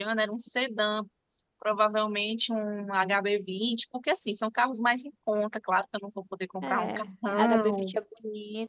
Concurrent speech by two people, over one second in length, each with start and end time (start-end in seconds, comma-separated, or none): 6.6-7.9